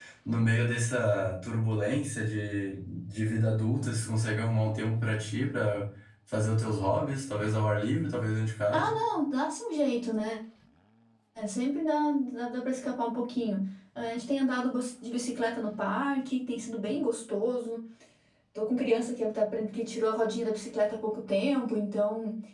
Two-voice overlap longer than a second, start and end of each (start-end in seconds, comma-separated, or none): none